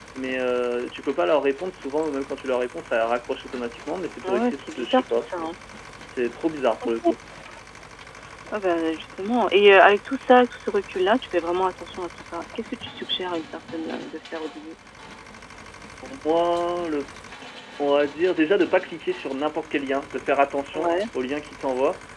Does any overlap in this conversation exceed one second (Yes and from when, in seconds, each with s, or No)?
Yes, from 4.3 s